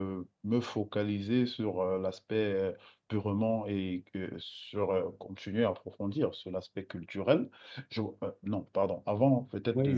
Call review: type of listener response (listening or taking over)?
taking over